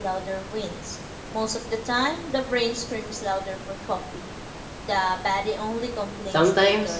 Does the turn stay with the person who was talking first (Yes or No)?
No